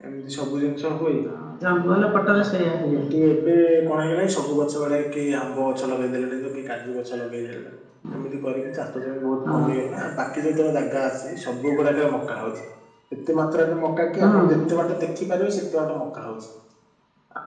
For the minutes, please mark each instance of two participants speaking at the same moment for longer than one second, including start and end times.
none

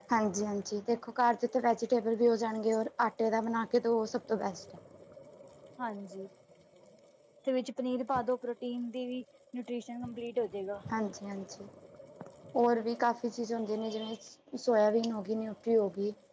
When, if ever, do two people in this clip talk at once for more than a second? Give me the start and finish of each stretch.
none

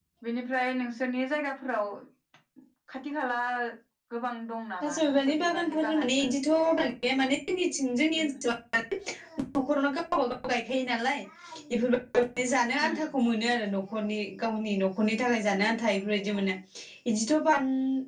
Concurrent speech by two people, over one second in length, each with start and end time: 4.8-6.4

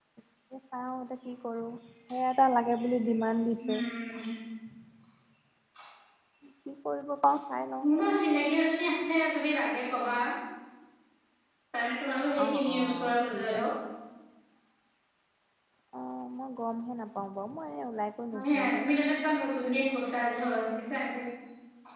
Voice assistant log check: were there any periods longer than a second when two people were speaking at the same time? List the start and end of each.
12.4-13.6

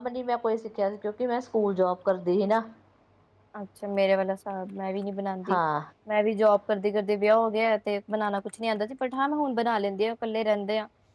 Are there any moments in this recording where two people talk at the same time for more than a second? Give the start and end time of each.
none

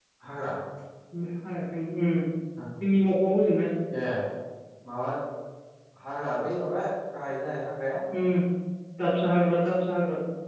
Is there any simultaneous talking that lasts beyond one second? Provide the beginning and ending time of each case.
none

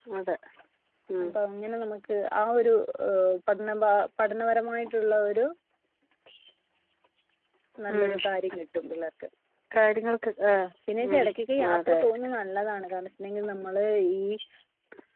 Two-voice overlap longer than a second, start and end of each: none

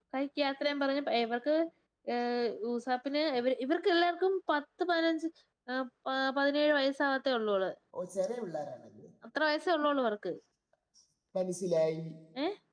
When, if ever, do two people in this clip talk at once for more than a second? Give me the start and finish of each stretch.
none

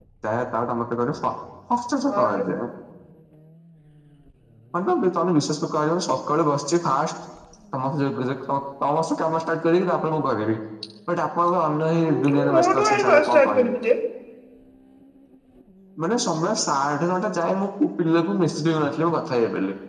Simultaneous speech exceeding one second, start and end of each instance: 12.0-13.7

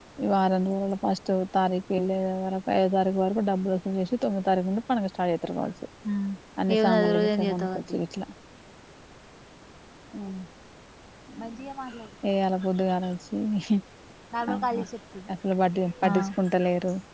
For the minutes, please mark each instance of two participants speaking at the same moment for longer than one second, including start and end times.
6.7-8.0

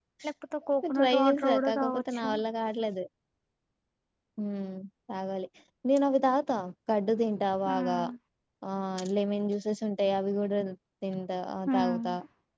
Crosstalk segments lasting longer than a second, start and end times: 1.0-2.3

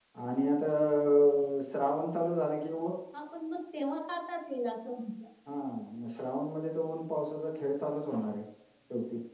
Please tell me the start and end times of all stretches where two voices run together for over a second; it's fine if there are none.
none

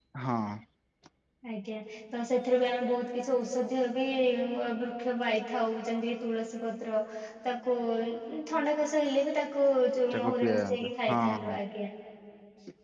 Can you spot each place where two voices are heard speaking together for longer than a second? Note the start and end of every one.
10.1-11.5

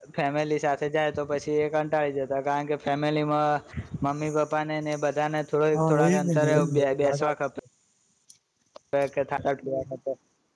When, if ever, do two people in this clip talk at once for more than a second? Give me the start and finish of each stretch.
5.7-7.3

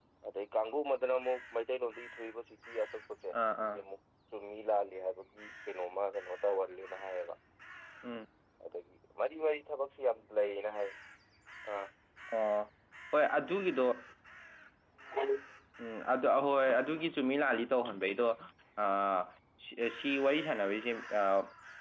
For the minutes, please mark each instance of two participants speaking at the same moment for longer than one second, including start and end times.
none

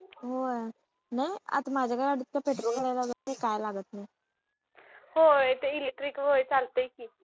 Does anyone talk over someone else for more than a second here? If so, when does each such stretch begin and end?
none

